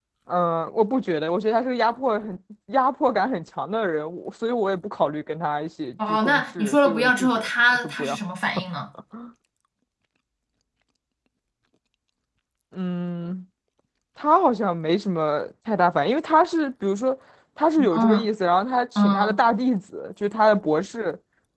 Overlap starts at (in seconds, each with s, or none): 6.1 s